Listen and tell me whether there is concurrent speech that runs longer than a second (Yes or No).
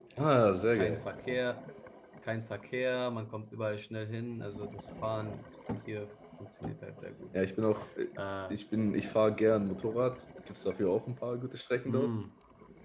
No